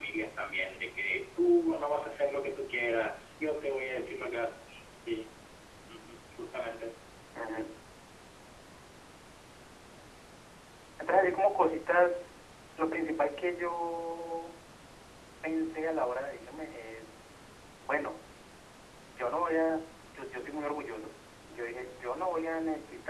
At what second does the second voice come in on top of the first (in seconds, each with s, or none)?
none